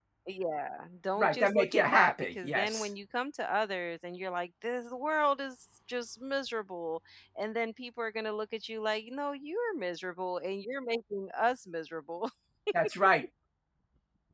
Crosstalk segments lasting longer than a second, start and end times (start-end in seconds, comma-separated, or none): 1.2-2.9